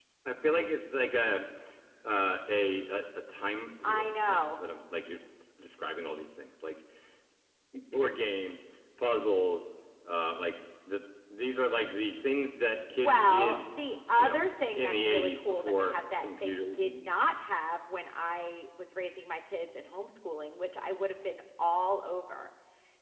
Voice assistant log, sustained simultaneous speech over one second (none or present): present